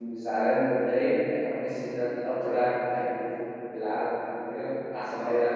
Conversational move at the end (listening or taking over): listening